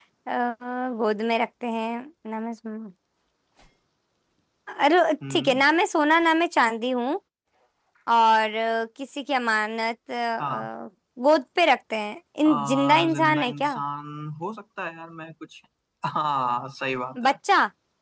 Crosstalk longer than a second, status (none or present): present